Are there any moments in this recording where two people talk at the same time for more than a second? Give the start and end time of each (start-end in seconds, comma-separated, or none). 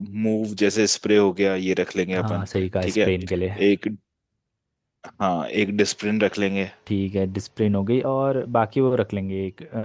none